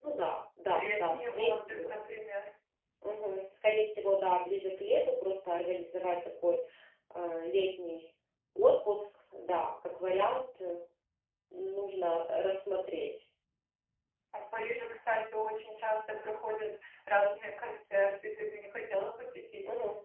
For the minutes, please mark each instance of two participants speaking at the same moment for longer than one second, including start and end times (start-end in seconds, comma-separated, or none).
0.7-1.9